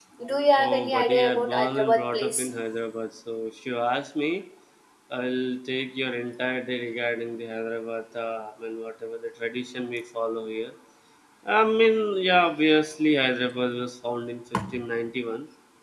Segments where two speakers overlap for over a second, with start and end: 0.6-2.5

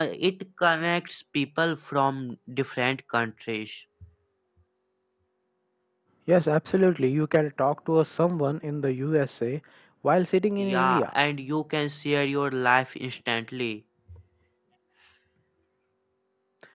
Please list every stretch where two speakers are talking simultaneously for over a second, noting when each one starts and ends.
none

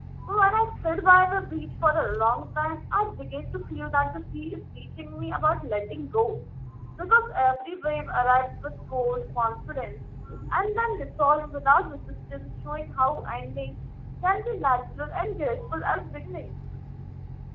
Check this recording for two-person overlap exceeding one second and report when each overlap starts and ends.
none

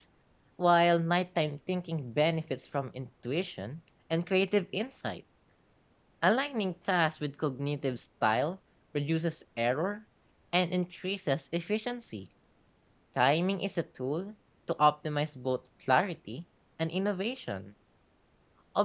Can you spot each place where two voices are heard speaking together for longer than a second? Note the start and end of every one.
none

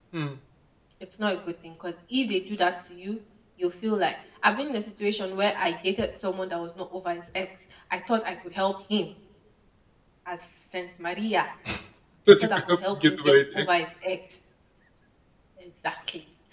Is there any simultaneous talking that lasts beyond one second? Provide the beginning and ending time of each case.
12.4-13.7

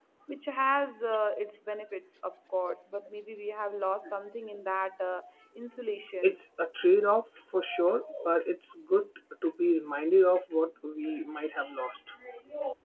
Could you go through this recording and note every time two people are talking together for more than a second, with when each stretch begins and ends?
none

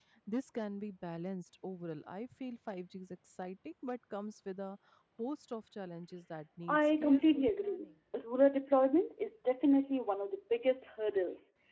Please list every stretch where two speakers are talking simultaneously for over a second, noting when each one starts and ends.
6.7-7.9

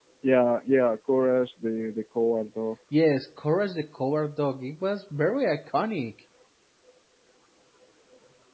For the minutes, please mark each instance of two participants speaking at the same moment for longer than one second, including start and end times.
none

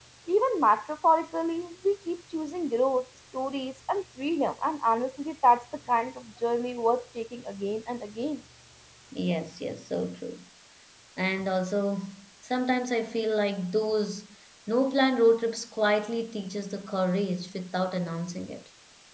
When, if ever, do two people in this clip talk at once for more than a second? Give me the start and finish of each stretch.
none

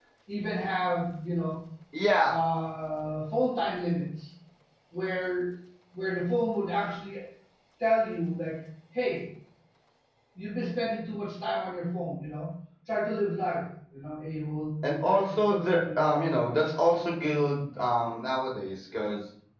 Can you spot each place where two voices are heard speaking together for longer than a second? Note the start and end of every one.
15.0-16.2

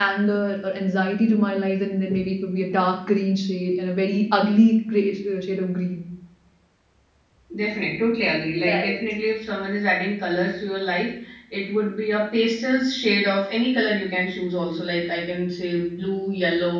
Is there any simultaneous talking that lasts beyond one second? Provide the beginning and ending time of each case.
none

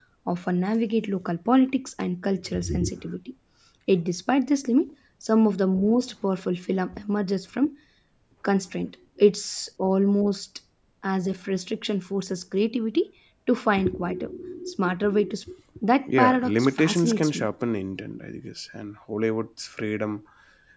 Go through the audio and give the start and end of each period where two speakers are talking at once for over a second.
16.1-17.5

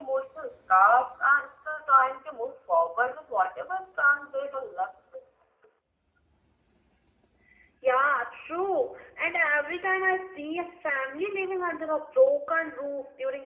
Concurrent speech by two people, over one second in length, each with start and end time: none

